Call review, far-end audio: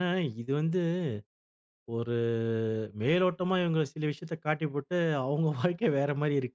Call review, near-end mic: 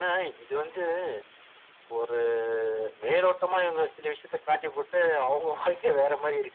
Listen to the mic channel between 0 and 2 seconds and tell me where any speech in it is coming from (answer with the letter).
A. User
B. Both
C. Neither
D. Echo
D